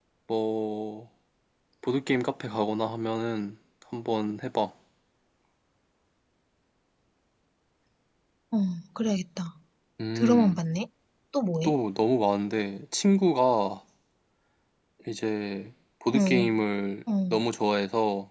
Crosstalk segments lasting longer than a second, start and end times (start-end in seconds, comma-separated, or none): none